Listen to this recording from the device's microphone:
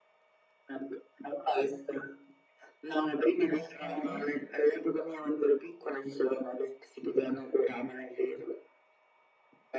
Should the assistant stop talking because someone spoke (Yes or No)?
Yes